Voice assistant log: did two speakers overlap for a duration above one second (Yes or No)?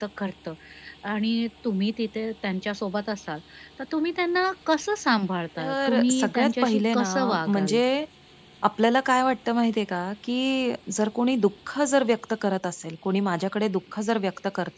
Yes